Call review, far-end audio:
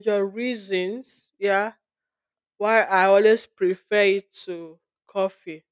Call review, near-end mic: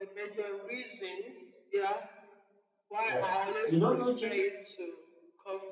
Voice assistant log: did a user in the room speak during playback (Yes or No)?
Yes